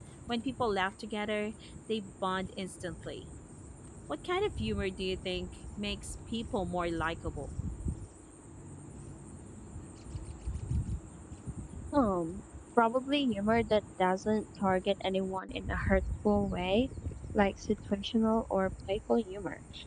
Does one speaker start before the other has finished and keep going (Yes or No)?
No